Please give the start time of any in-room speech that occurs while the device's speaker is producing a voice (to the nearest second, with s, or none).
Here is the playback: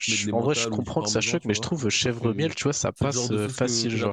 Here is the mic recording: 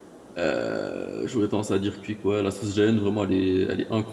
0 s